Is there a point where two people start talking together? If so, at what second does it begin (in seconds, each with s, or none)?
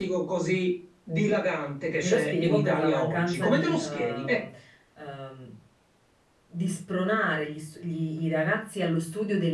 2.0 s